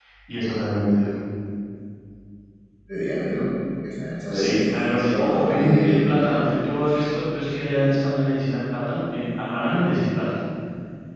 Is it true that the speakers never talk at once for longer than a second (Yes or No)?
No